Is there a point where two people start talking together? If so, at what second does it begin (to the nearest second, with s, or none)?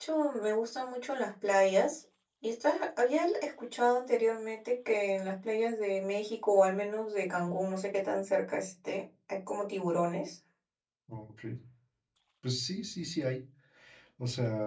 none